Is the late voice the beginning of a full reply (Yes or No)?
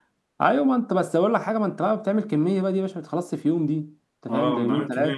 Yes